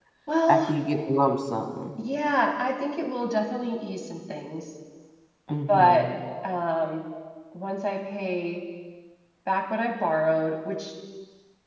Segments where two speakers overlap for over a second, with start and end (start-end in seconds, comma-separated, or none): none